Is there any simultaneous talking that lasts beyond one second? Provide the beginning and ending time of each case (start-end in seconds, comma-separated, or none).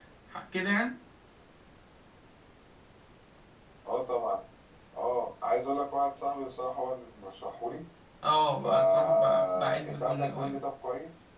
8.6-10.6